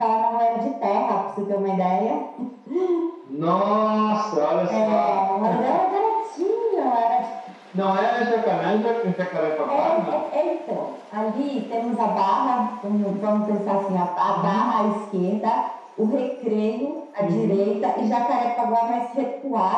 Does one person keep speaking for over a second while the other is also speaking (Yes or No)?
No